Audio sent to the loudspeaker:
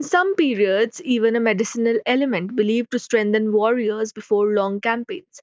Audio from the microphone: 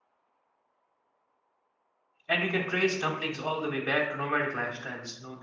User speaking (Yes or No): Yes